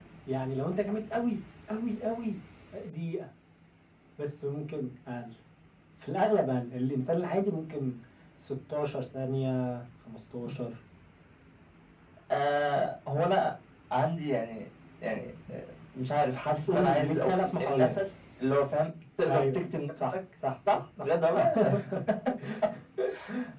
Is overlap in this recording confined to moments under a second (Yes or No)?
No